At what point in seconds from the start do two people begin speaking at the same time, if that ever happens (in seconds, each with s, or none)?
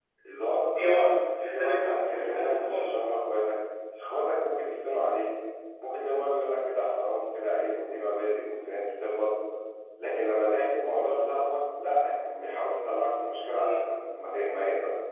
0.8 s